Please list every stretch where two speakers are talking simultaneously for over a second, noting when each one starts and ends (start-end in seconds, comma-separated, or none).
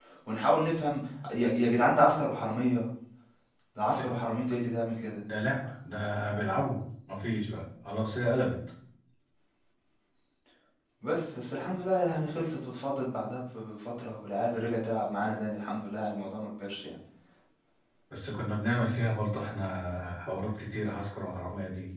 none